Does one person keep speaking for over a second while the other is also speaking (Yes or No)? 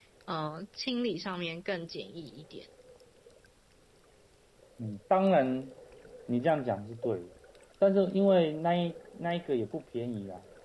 No